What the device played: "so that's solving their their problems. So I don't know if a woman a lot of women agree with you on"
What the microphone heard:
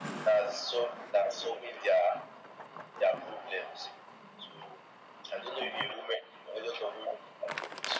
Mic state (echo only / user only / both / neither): echo only